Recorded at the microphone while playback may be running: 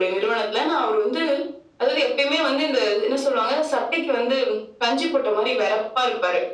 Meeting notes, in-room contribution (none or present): none